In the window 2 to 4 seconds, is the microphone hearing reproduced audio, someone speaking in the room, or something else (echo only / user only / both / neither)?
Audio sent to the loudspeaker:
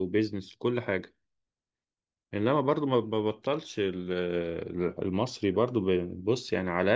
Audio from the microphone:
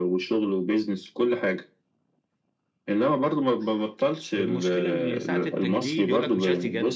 echo only